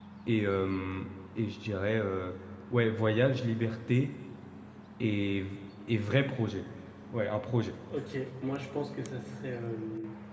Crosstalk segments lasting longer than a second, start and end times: none

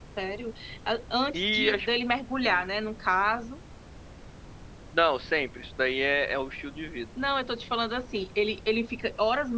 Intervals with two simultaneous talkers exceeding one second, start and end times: none

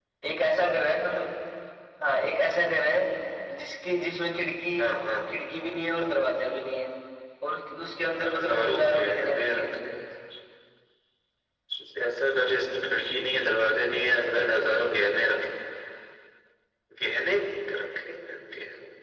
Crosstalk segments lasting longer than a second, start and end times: 8.3-9.6

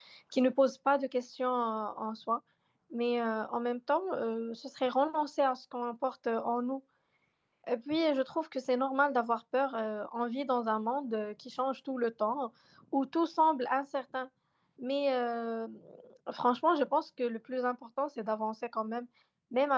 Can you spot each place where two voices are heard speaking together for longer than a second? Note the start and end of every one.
none

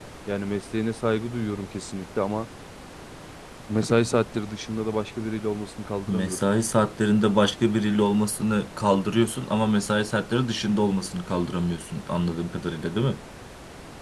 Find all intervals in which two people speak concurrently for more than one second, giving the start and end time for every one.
none

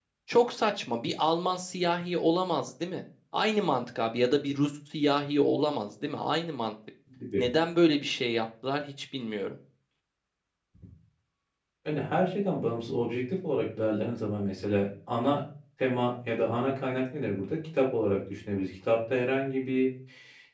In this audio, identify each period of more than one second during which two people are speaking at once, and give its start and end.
none

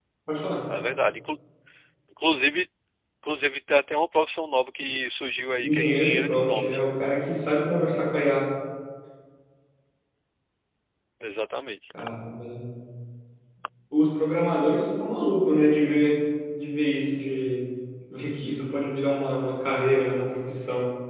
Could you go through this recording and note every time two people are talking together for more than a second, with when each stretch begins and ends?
5.6-6.8

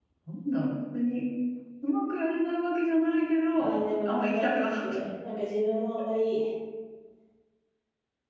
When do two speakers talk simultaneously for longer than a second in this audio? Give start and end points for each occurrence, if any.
3.5-4.8

